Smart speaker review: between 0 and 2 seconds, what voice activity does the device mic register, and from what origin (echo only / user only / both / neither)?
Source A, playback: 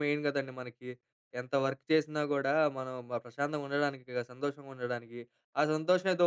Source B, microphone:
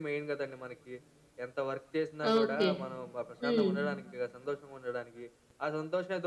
echo only